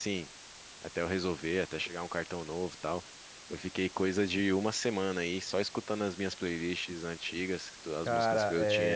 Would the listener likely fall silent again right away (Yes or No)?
No